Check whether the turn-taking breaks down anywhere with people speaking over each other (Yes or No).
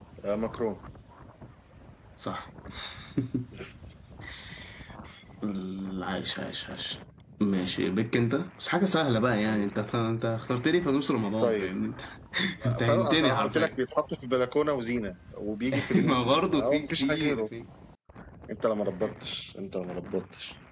Yes